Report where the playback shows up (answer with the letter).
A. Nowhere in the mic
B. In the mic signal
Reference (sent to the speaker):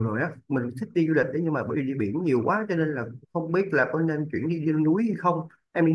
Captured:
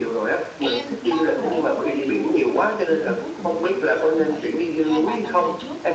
B